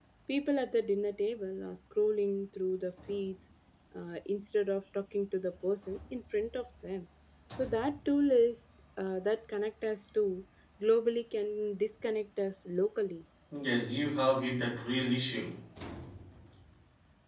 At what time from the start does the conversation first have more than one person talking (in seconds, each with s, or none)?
none